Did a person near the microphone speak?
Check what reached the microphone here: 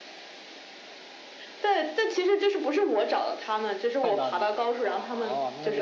Yes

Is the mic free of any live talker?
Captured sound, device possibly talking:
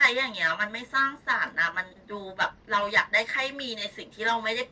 Yes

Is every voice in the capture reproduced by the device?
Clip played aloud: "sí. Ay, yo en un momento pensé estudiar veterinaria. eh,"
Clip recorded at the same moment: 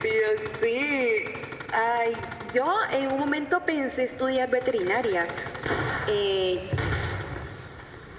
Yes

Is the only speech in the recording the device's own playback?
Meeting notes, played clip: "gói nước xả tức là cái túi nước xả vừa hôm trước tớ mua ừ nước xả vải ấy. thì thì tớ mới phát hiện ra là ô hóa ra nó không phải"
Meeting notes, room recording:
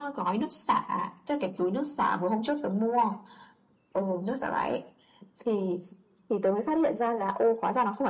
Yes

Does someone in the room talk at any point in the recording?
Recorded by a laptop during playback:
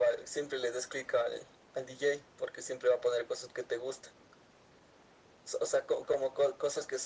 No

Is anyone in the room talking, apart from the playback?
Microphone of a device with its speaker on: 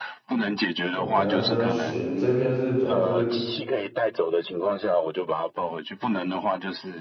Yes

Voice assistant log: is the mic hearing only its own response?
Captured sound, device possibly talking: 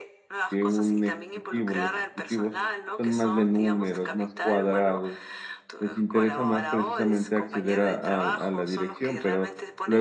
No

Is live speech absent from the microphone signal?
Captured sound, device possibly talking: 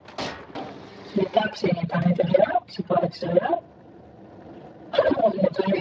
Yes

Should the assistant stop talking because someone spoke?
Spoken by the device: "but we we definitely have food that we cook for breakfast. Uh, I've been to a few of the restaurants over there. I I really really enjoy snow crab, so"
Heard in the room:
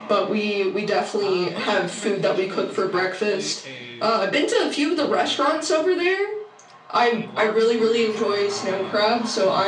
Yes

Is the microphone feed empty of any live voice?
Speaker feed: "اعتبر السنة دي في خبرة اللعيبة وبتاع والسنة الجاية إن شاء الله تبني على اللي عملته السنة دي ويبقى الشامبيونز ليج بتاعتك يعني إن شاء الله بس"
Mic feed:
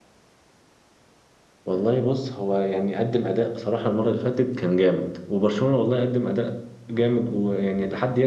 No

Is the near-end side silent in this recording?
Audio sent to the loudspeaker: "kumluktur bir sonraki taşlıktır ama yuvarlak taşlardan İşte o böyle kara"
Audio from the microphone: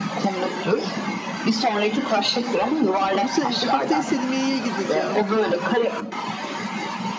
No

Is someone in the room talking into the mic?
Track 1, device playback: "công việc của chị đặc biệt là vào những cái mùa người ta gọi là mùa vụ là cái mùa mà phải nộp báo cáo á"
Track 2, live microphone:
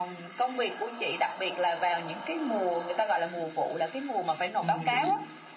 Yes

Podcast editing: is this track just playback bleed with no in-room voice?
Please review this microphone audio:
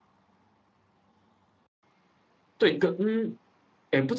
No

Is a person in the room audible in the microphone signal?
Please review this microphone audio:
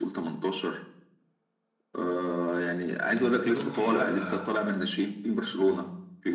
Yes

